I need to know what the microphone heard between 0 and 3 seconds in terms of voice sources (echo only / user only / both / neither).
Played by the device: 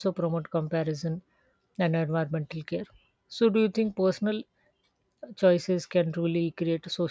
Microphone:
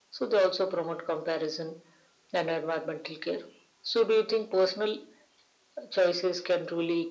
echo only